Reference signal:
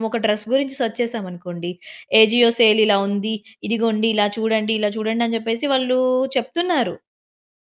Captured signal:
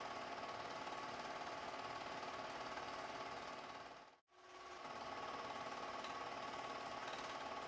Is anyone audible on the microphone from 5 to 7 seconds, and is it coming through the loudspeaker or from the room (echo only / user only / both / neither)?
neither